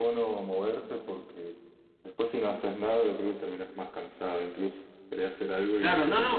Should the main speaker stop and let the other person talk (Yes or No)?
Yes